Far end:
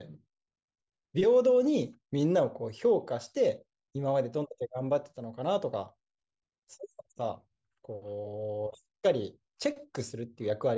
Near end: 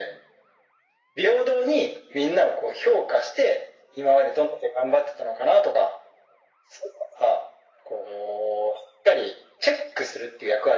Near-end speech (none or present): none